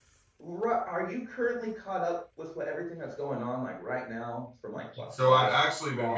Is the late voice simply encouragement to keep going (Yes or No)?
No